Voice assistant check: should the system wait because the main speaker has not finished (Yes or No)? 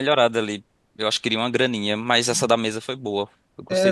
No